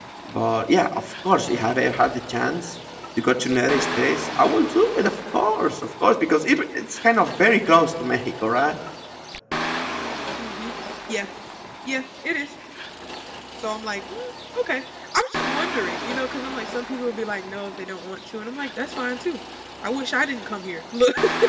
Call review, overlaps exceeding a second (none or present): none